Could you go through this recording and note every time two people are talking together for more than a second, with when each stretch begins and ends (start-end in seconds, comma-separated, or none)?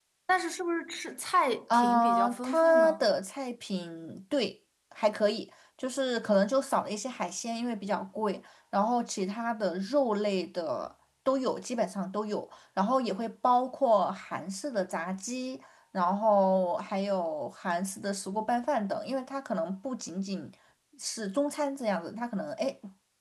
1.7-3.1